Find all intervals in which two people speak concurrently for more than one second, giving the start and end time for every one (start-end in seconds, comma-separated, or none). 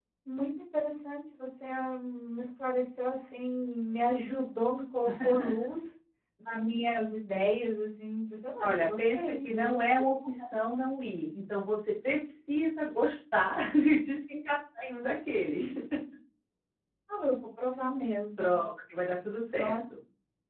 8.6-10.1